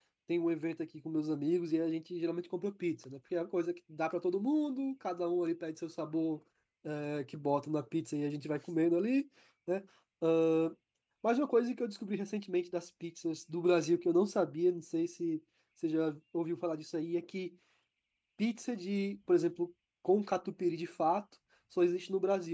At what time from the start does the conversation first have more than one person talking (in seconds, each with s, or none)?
none